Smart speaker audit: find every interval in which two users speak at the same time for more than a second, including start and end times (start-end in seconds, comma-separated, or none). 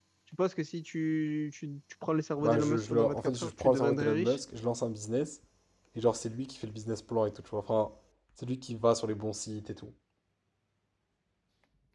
2.4-4.4